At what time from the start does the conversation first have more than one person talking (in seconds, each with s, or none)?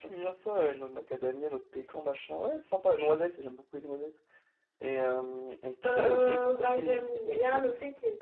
5.8 s